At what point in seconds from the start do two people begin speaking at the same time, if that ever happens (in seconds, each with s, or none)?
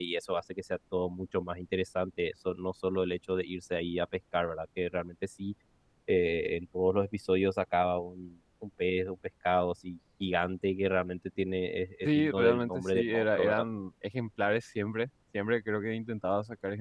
12.0 s